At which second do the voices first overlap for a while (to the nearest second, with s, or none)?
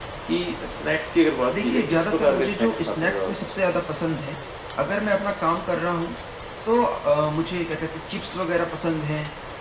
2 s